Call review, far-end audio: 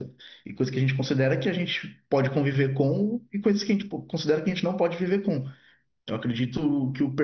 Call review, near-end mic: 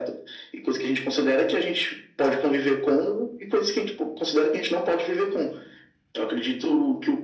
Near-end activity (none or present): none